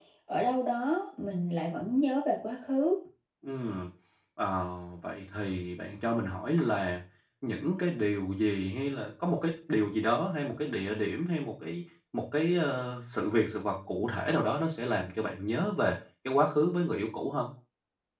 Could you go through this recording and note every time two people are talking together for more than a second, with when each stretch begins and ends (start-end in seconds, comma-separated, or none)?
none